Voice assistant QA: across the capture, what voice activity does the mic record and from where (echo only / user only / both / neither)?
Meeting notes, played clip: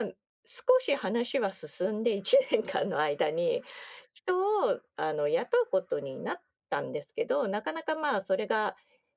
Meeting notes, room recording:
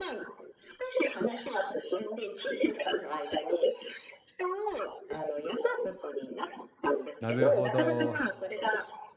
both